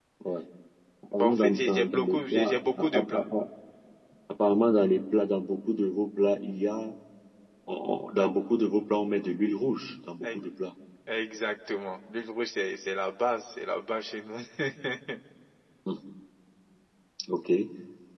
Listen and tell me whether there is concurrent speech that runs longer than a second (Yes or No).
Yes